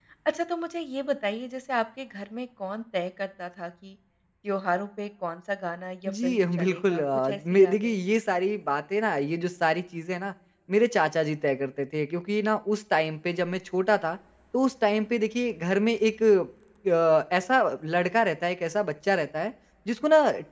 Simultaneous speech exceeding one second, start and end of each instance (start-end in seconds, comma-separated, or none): 6.1-8.0